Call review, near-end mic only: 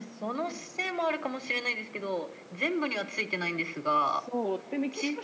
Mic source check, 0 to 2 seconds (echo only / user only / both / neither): echo only